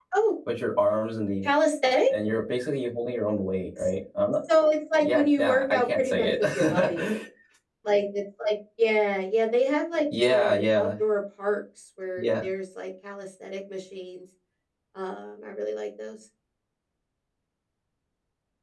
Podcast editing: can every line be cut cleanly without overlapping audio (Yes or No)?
No